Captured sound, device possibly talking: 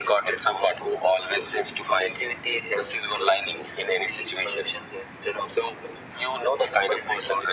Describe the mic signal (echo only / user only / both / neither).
echo only